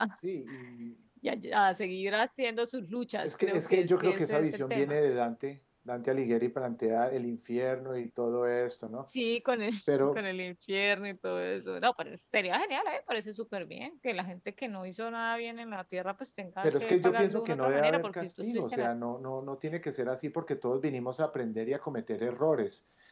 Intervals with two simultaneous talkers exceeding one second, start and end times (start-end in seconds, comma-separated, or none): 3.2-5.0, 16.6-18.9